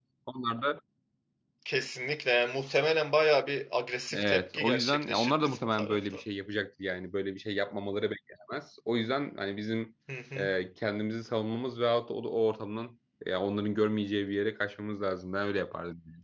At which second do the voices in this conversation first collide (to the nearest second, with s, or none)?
4 s